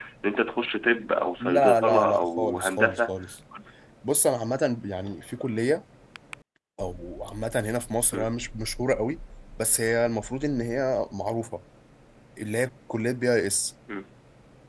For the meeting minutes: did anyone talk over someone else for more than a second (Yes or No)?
Yes